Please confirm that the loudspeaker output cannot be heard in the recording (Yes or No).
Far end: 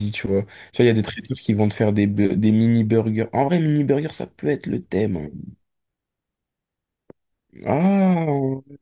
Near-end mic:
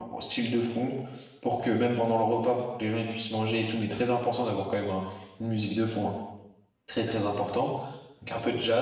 Yes